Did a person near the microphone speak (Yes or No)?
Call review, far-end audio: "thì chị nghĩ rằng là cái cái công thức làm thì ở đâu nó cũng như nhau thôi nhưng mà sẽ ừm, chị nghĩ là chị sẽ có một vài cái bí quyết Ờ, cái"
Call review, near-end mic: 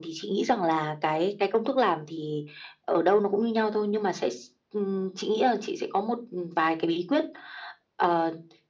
No